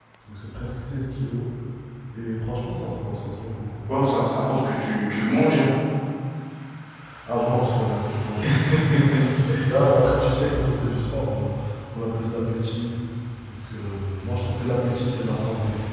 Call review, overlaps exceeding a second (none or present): none